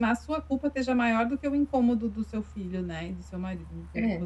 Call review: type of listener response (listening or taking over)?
listening